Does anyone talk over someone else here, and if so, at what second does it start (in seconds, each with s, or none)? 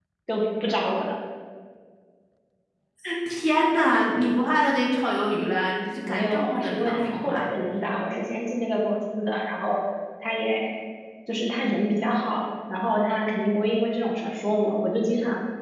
6.1 s